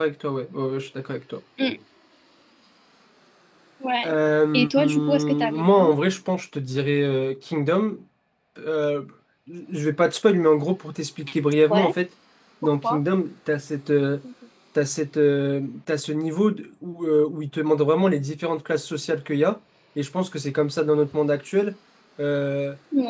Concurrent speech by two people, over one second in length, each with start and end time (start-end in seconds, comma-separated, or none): 4.5-5.9